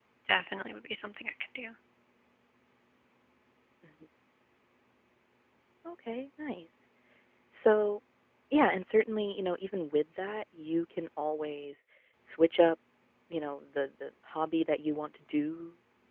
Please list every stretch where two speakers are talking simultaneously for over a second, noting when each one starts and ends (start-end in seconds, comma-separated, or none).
none